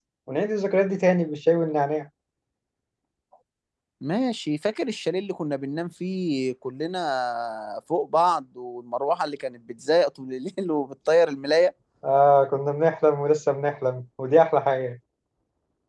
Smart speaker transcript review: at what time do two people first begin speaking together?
none

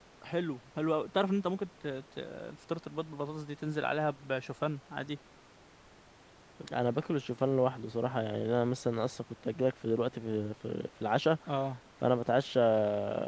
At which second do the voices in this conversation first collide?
none

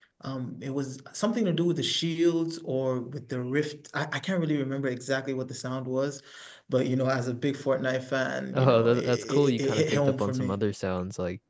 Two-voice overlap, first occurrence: 8.5 s

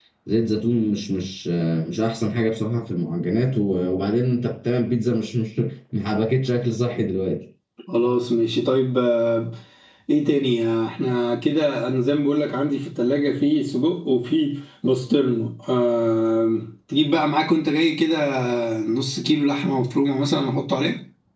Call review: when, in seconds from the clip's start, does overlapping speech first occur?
none

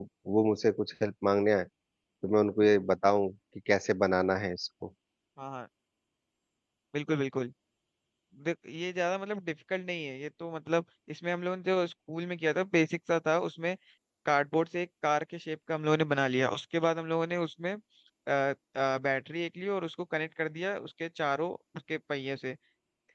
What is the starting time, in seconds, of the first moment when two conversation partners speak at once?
none

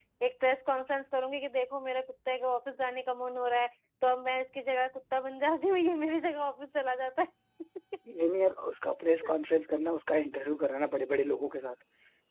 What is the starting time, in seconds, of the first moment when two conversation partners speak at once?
none

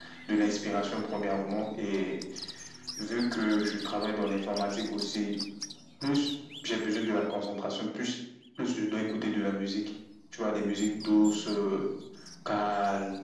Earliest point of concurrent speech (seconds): none

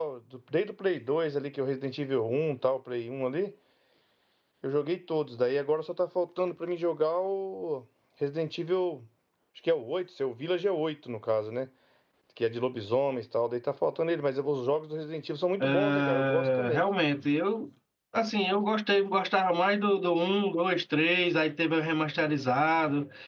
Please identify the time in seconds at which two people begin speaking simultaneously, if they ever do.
15.6 s

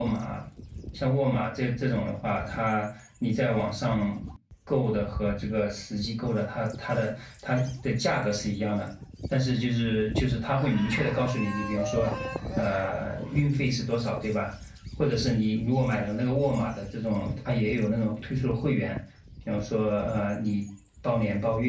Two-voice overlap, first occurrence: none

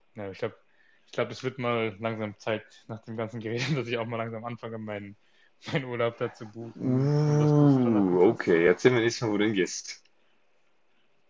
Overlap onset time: 6.6 s

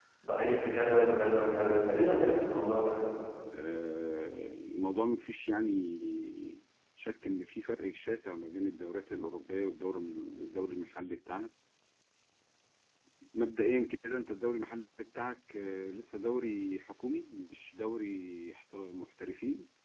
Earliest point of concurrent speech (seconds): none

